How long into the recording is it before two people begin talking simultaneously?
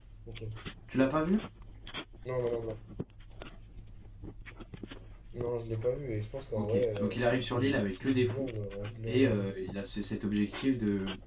7 s

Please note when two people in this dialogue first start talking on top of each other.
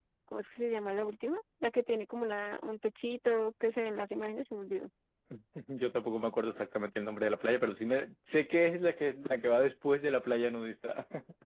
none

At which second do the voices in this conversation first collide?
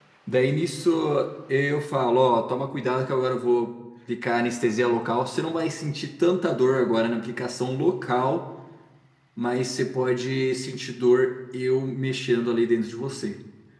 none

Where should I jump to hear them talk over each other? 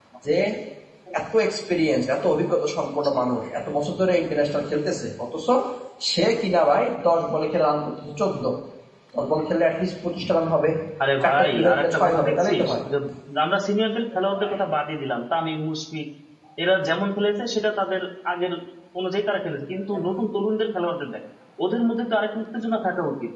11 s

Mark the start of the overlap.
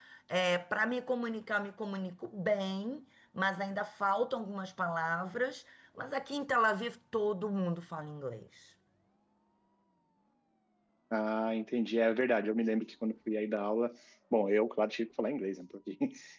none

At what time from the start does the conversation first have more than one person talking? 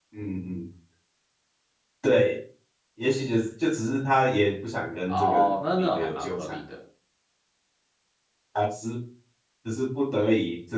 5 s

